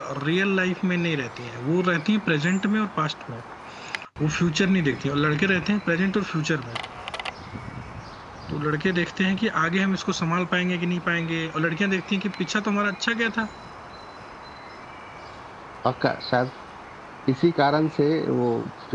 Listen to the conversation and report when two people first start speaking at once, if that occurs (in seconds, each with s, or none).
none